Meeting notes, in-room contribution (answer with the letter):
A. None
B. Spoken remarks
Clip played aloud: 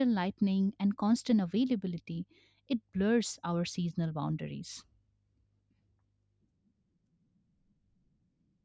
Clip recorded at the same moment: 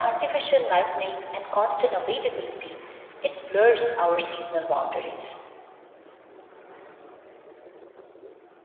A